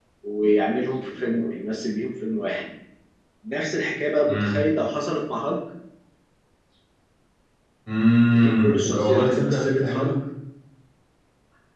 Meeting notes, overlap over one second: present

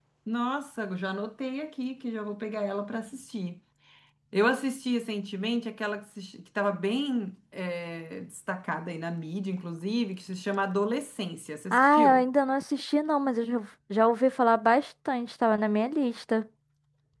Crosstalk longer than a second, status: none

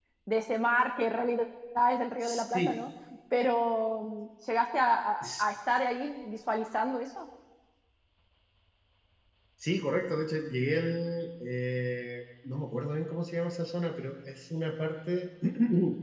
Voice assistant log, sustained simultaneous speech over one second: none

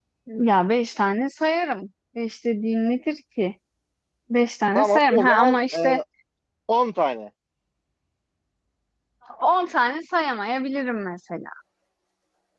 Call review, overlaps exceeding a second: present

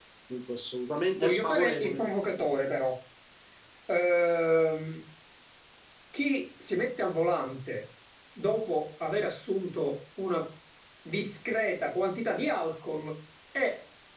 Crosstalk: present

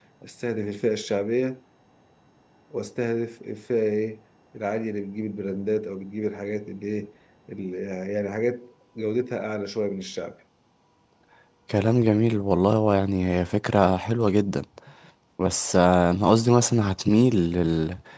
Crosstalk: none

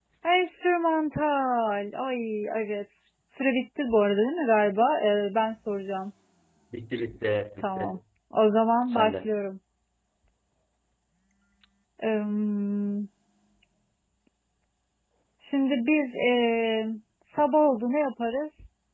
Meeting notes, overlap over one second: none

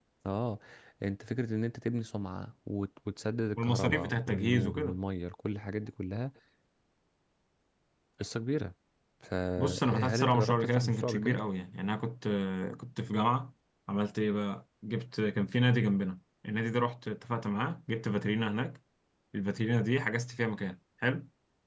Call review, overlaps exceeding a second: present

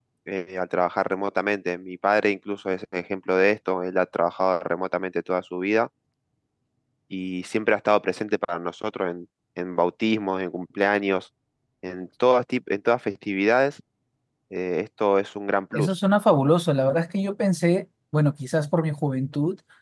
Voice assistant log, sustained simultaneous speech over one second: none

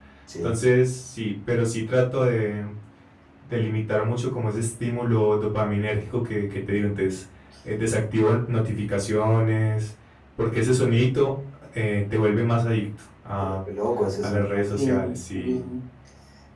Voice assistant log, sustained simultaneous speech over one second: present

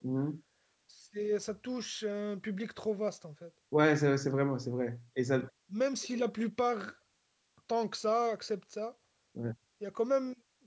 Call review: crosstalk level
none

